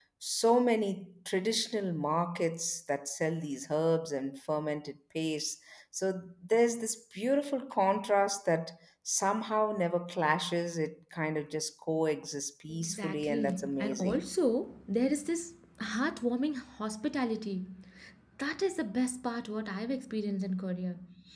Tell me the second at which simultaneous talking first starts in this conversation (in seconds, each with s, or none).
12.7 s